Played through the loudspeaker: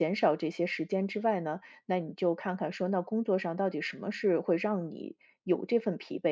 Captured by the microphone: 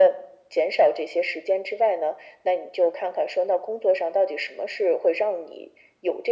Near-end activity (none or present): none